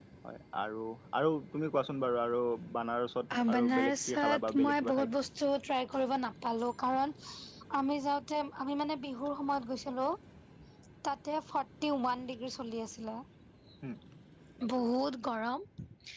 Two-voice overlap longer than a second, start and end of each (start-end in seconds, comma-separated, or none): 3.5-5.1